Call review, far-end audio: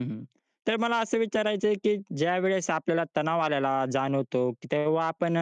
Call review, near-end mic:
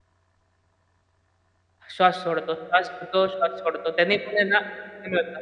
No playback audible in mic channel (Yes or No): Yes